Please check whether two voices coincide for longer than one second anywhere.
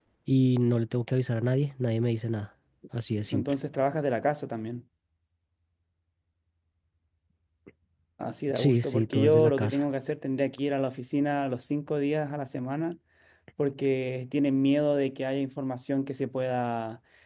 Yes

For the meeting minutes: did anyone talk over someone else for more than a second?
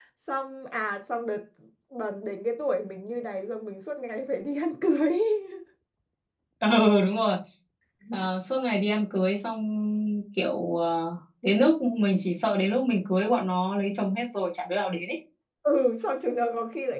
No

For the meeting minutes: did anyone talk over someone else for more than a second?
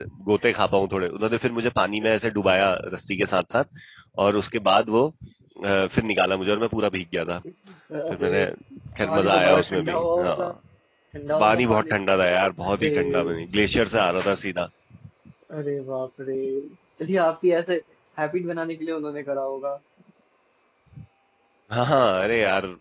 Yes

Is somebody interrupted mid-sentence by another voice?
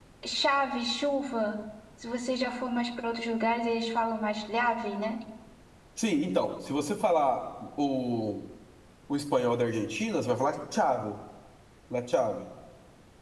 No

